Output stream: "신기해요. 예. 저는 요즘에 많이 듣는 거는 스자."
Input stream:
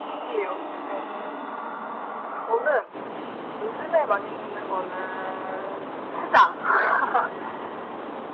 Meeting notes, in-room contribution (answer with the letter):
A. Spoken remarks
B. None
B